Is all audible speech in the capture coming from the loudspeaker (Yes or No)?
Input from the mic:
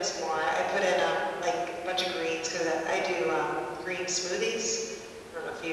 Yes